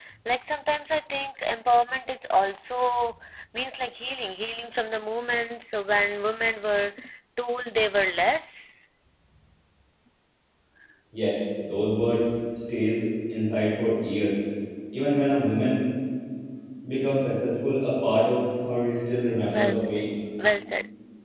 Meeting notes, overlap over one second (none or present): none